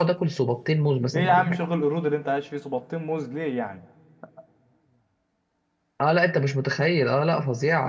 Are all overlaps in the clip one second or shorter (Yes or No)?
Yes